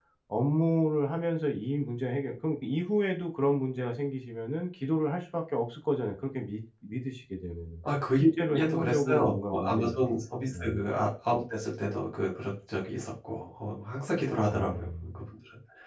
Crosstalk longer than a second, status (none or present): present